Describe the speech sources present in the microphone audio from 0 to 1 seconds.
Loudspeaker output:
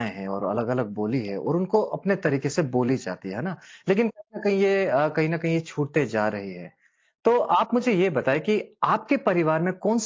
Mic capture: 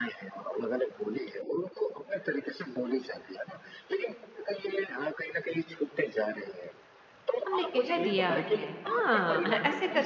echo only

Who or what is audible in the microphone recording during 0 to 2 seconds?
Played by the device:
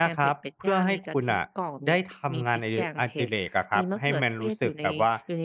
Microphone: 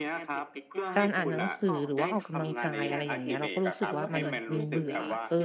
both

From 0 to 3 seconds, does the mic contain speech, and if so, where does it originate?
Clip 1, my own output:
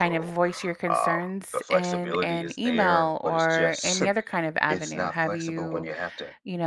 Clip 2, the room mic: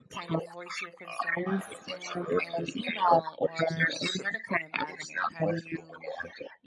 both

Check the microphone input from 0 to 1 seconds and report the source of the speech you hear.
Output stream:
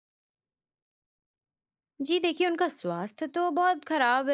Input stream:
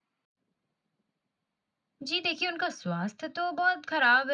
neither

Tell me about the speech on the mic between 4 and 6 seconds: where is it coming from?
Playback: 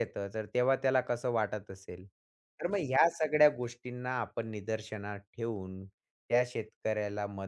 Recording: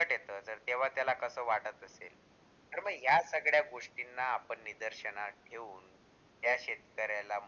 echo only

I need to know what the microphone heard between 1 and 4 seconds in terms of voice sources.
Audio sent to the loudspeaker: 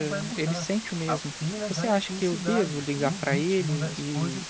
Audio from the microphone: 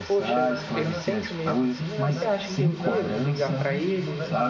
both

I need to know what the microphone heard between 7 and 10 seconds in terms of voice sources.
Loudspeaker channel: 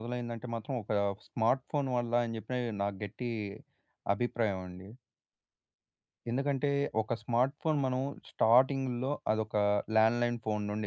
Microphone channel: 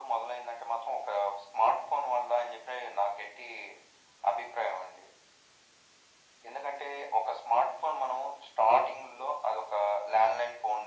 echo only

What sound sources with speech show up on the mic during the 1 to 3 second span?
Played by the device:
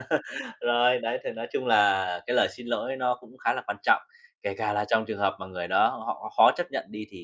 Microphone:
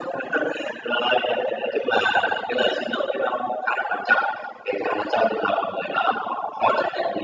echo only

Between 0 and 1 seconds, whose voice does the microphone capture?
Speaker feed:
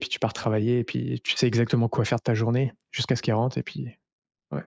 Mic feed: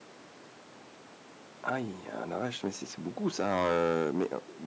neither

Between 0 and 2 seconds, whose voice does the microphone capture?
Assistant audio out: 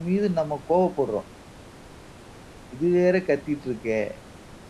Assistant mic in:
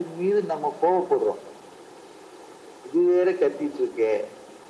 echo only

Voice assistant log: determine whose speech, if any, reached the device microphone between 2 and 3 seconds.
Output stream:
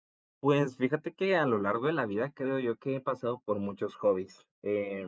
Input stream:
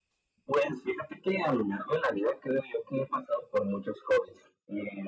echo only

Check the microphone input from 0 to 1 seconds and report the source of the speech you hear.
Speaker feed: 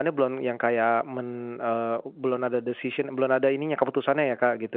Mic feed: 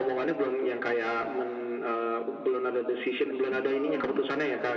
echo only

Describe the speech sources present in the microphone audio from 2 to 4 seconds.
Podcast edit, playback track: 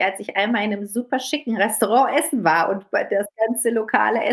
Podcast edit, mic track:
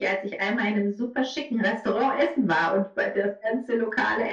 echo only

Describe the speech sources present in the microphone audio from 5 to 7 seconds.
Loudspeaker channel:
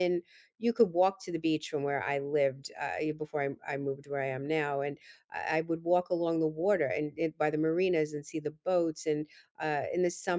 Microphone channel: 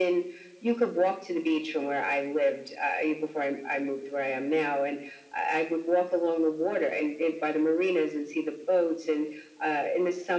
echo only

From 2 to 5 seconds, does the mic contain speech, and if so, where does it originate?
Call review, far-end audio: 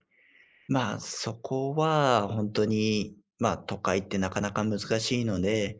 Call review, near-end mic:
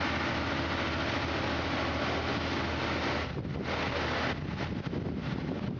neither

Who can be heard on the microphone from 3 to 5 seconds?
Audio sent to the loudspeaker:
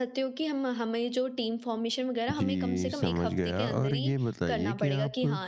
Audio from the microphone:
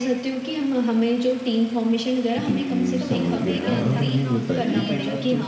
both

